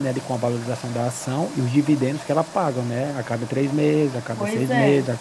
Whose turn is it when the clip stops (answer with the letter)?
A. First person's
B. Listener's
A